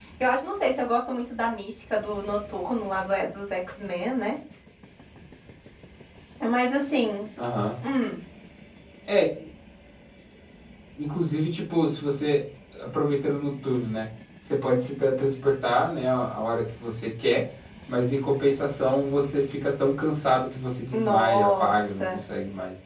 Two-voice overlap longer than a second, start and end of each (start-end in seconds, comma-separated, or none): 20.9-22.2